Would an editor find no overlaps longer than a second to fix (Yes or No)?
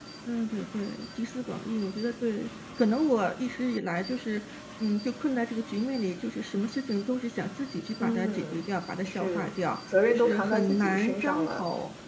No